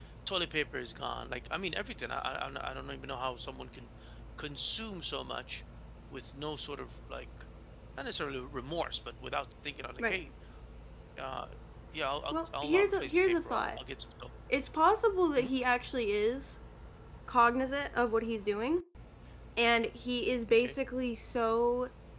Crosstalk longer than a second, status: present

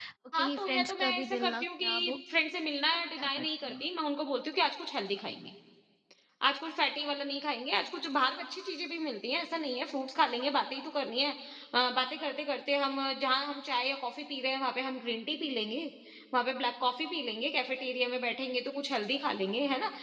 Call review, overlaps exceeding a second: present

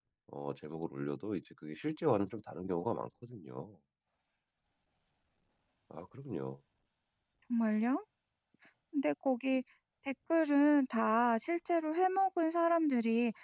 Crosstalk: none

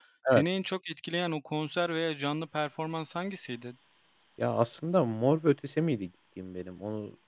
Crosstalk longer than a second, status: none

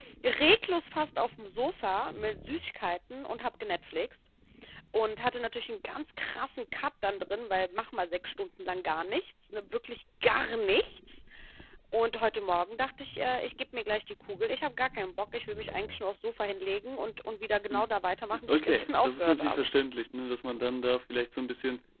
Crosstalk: present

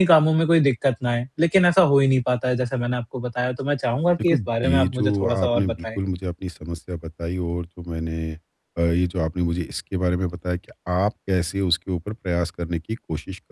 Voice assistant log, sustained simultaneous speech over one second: present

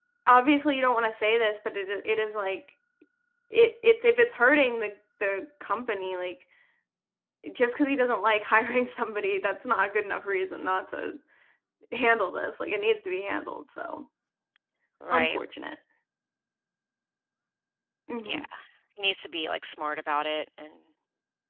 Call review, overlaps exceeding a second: none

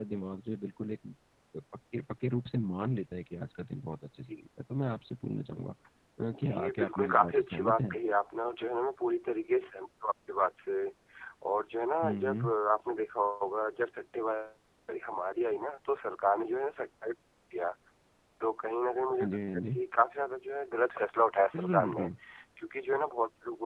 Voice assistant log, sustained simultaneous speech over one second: present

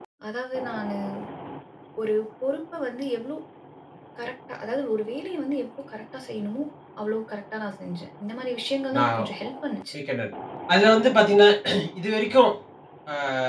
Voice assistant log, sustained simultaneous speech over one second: none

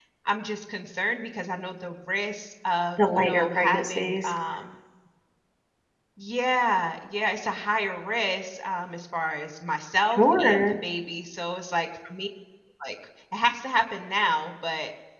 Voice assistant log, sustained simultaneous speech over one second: present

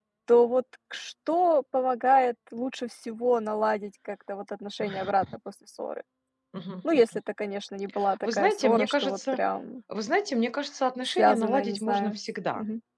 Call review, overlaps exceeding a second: present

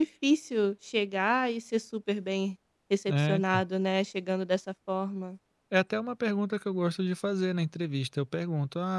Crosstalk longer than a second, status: none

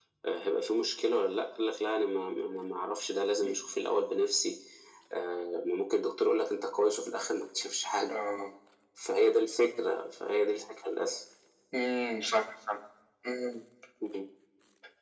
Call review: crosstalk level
none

